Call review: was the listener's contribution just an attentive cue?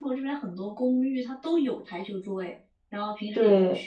Yes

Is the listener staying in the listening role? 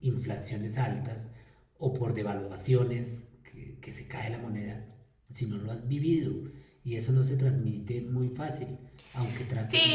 No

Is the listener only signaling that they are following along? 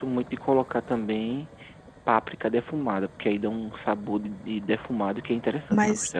No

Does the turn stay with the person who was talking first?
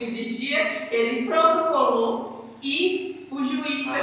Yes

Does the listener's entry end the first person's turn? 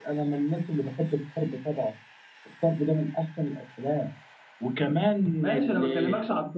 Yes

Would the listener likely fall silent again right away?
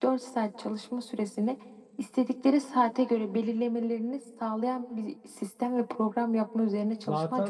No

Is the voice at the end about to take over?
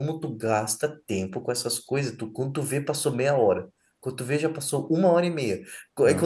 No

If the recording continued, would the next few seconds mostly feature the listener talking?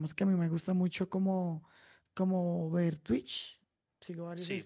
No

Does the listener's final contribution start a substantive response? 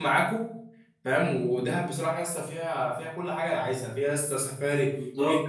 No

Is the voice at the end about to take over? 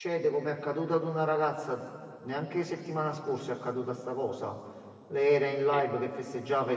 No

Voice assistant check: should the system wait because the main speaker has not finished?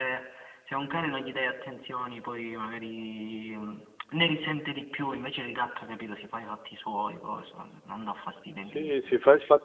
No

